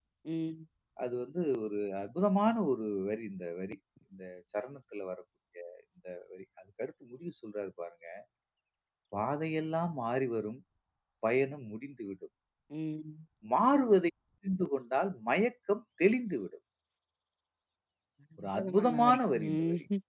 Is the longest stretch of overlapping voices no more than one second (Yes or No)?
No